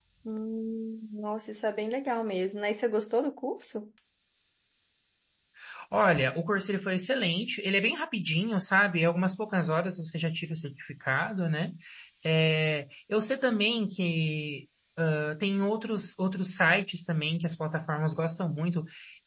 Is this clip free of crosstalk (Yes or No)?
Yes